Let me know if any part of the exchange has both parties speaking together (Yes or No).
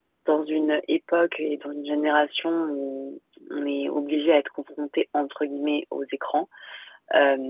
No